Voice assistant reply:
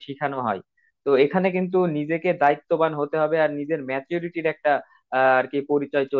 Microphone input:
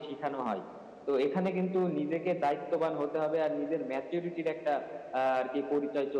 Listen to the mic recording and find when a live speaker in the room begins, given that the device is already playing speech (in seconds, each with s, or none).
none